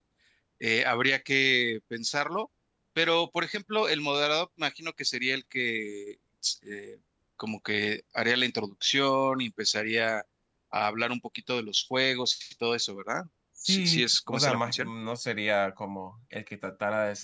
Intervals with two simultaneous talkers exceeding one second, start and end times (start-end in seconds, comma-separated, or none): 13.6-14.9